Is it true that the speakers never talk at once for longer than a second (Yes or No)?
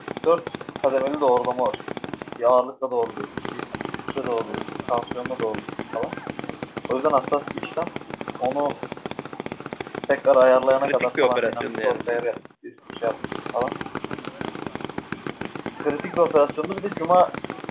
No